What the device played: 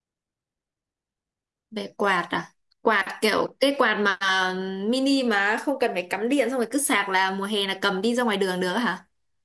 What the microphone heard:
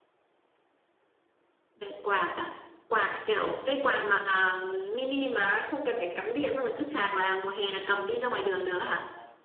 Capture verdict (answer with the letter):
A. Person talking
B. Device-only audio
A